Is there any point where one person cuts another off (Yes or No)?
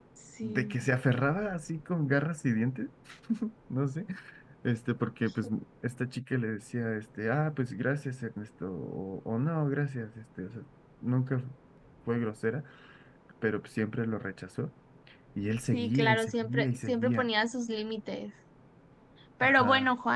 Yes